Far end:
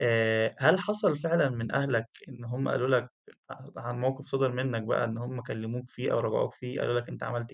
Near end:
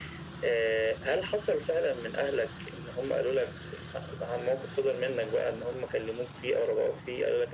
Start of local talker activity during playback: none

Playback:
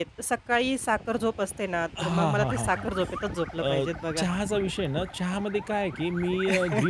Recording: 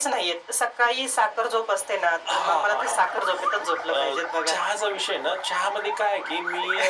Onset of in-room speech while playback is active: none

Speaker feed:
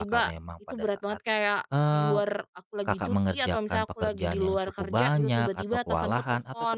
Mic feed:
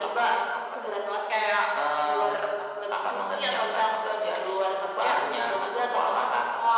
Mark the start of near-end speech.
none

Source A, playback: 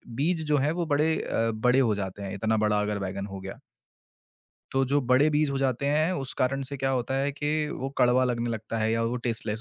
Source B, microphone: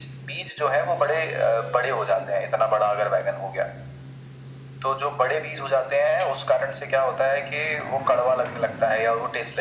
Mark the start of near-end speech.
none

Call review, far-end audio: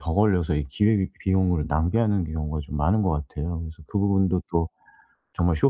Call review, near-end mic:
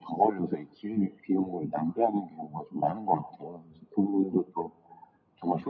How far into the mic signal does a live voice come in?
none

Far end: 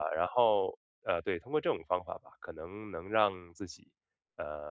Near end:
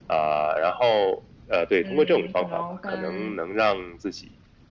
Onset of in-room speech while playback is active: 1.8 s

